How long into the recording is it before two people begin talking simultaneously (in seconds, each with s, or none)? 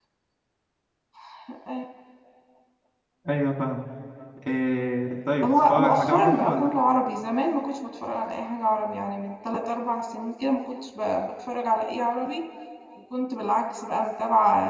5.4 s